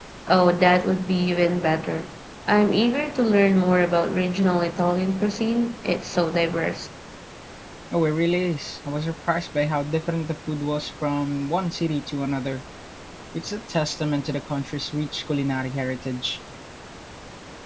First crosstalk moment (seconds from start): none

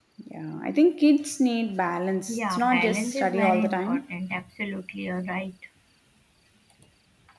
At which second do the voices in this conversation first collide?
2.3 s

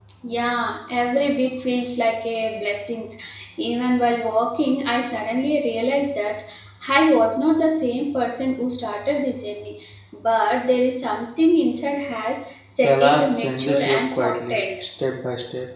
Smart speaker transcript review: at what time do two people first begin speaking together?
12.8 s

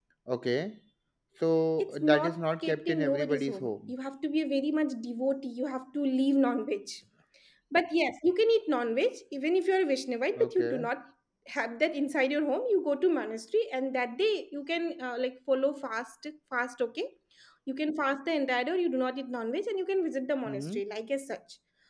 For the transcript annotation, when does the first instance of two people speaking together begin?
1.8 s

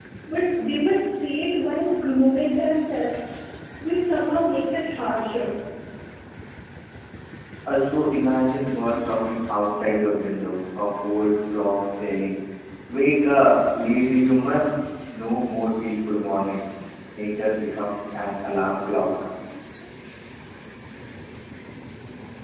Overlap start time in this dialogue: none

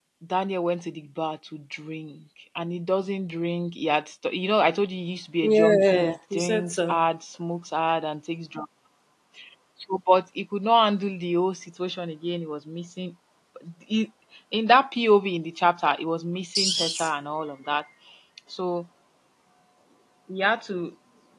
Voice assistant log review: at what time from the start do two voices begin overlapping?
5.4 s

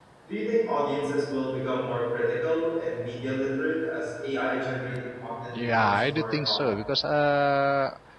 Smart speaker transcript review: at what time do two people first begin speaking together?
5.5 s

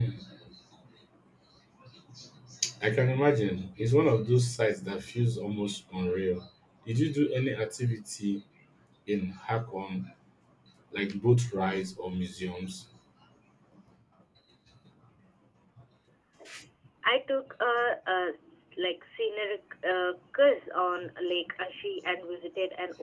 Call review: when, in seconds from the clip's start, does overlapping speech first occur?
none

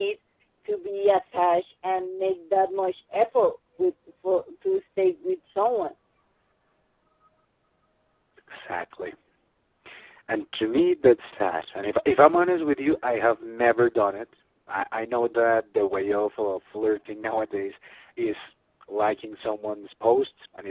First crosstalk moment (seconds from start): none

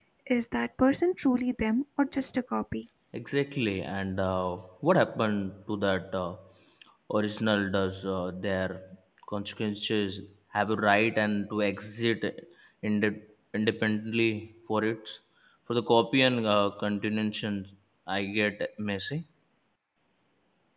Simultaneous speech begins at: none

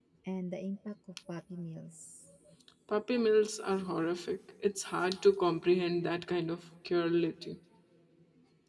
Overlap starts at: none

